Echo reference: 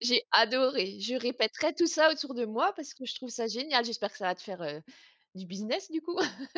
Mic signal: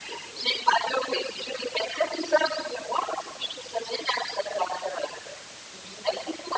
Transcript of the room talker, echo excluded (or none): none